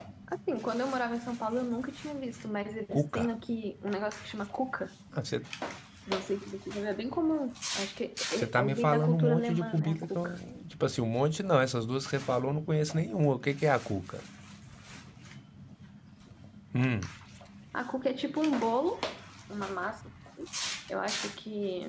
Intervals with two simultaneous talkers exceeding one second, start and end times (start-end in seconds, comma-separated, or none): 8.3-10.4